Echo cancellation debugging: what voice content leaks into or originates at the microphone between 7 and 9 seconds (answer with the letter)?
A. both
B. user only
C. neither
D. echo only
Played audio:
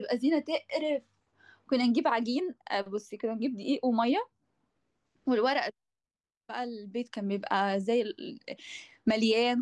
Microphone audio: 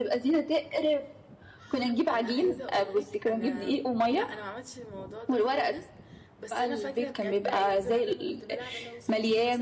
A